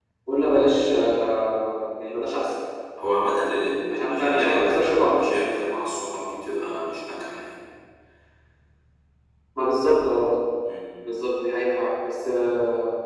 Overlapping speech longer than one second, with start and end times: 3.9-5.2

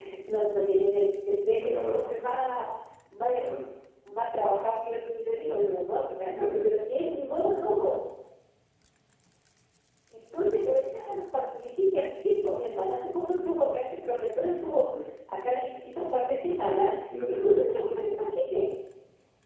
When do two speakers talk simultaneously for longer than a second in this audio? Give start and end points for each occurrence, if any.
none

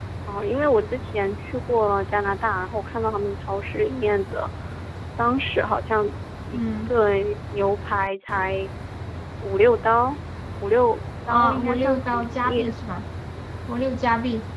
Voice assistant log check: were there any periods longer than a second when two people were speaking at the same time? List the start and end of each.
11.3-12.6

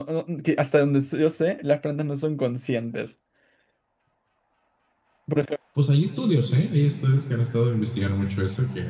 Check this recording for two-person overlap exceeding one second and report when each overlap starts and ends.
none

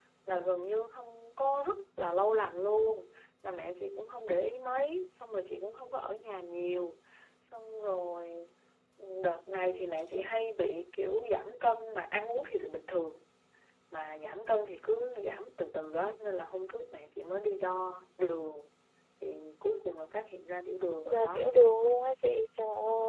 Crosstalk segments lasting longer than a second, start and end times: none

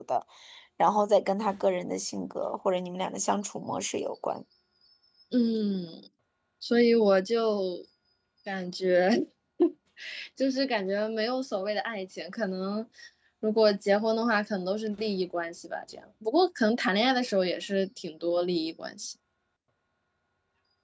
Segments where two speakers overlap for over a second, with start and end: none

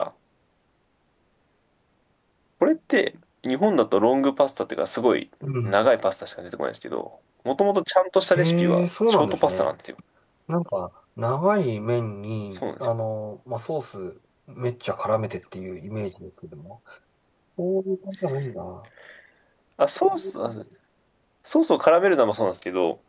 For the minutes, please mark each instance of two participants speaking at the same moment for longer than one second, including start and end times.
8.3-9.7

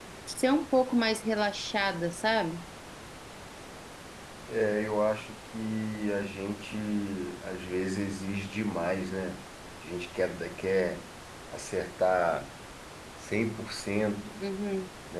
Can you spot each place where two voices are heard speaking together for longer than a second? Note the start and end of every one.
none

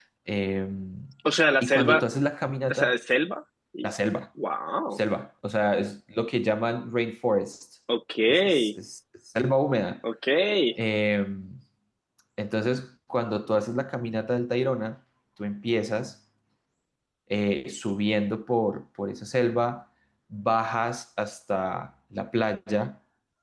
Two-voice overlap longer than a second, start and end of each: none

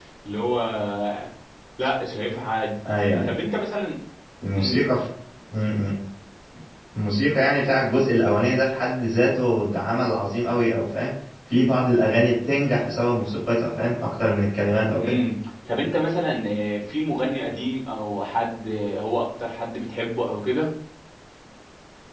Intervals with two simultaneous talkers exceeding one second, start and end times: none

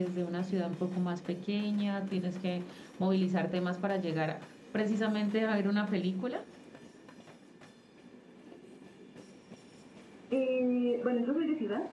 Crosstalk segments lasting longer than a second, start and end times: none

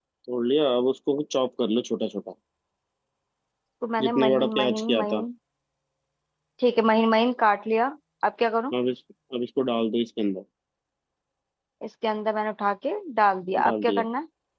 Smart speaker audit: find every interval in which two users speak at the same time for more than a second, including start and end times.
4.0-5.2

